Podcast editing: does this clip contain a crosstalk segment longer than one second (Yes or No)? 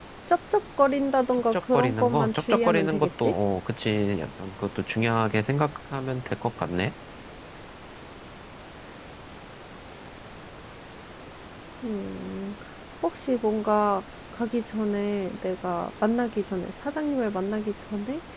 Yes